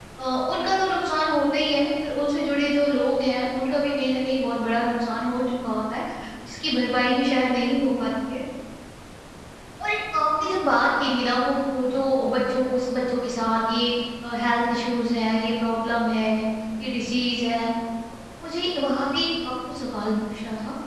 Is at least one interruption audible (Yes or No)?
No